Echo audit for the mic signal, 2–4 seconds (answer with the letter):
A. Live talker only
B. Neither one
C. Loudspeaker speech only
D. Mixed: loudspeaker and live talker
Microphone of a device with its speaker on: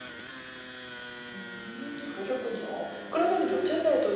C